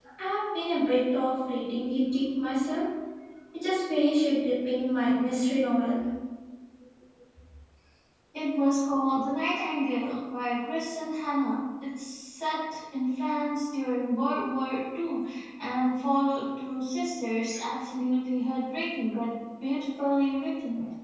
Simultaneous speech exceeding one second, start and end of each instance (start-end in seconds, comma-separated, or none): none